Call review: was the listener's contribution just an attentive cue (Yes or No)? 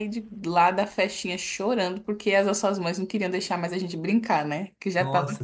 No